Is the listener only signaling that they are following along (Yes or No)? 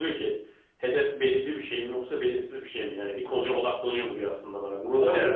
No